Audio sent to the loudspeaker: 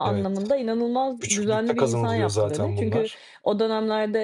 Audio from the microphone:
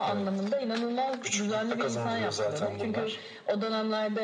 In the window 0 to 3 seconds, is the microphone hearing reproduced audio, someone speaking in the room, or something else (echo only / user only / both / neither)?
echo only